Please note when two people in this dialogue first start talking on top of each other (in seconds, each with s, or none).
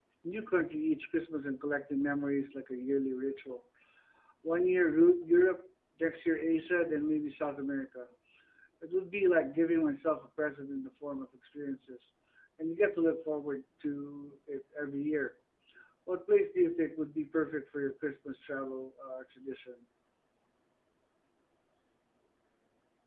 none